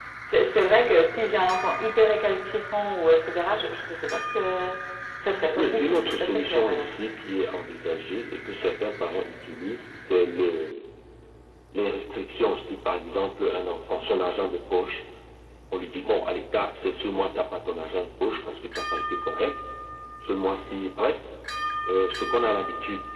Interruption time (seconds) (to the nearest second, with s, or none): 6 s